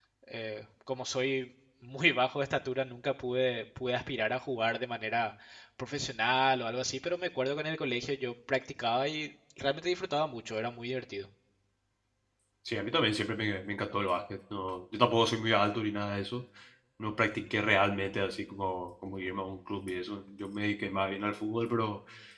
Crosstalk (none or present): none